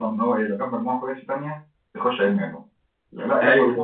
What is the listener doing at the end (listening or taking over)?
listening